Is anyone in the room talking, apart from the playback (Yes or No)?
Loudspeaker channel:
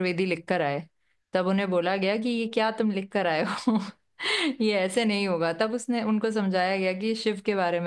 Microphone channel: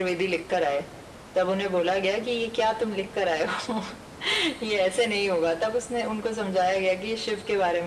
No